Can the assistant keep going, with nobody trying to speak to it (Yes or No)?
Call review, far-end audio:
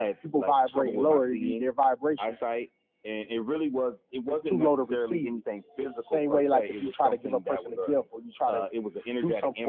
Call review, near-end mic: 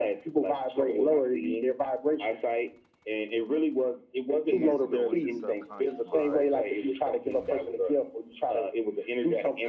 No